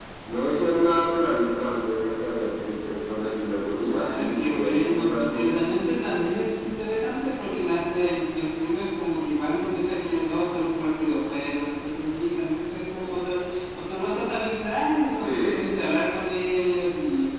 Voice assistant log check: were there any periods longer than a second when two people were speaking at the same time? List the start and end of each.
3.8-5.6

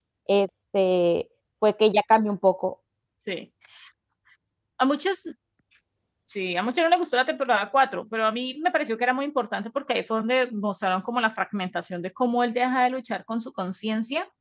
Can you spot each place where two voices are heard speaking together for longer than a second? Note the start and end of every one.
none

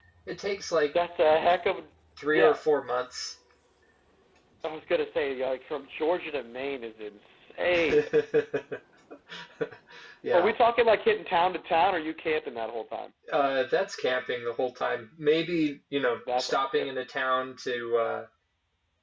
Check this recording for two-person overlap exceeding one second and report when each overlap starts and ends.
none

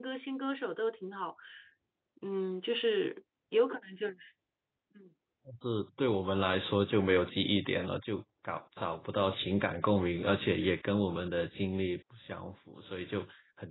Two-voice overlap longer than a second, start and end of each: none

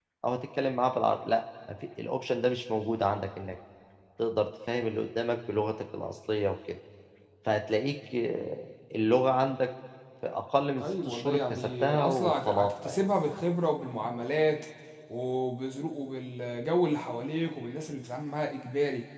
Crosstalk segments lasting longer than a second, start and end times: 10.8-13.0

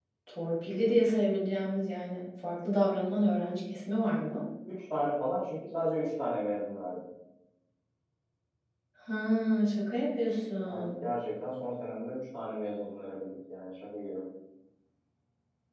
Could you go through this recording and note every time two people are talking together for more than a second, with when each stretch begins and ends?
none

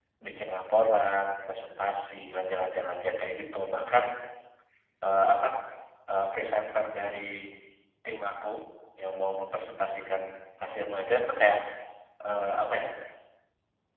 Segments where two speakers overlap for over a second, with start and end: none

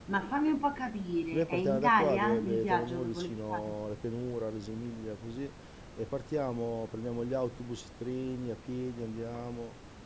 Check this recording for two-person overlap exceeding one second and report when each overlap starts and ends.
1.3-3.8

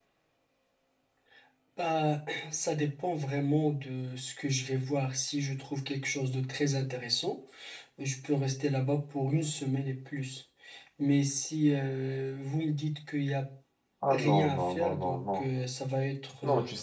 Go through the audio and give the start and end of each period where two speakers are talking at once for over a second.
14.1-15.4

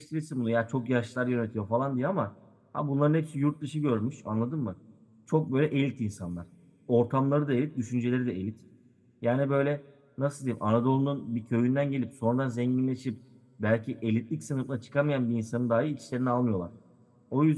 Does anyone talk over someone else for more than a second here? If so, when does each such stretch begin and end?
none

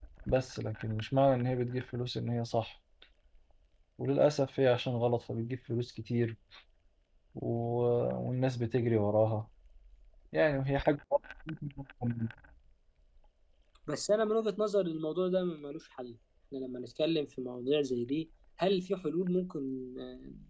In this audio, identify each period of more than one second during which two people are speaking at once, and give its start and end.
none

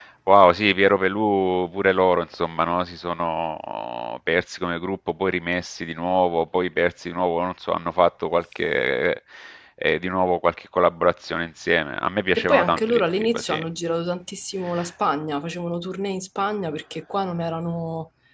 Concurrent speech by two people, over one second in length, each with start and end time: 12.3-13.6

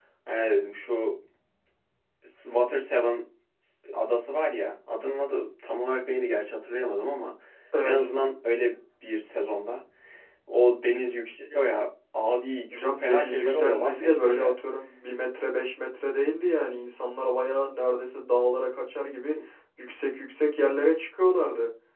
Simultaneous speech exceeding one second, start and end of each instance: 12.7-14.6

